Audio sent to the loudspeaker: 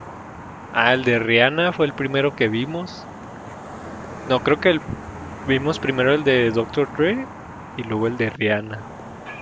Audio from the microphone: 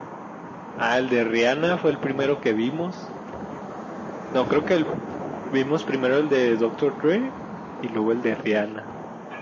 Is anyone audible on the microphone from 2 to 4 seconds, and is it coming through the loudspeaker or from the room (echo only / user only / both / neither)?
echo only